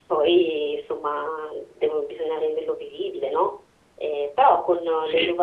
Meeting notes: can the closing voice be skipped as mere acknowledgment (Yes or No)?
Yes